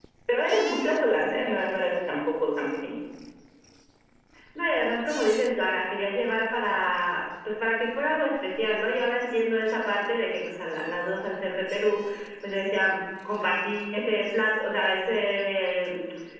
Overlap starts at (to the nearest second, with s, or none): none